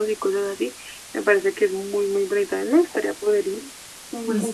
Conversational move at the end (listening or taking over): taking over